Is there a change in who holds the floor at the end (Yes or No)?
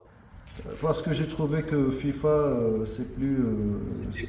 No